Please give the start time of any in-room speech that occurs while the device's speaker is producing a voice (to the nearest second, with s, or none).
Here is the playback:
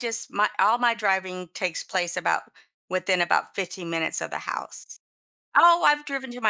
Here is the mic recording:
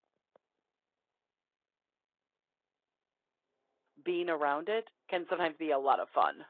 4 s